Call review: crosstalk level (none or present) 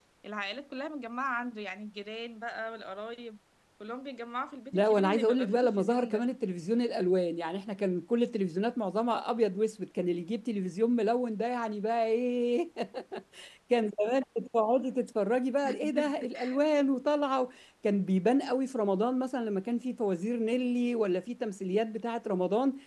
present